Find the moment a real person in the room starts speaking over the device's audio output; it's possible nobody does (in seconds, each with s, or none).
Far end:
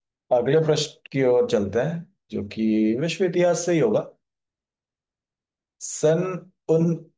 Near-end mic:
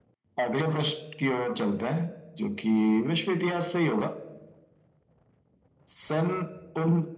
none